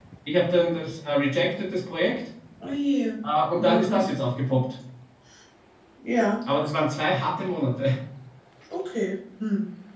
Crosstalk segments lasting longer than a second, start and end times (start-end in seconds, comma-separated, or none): none